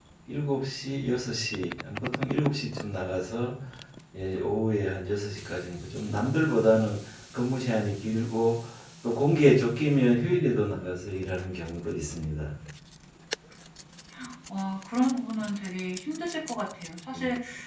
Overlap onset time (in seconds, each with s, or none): none